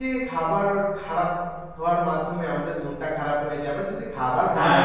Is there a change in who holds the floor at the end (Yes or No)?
No